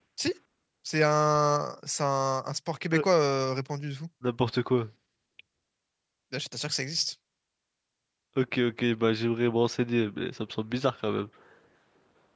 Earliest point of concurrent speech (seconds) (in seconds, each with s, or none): none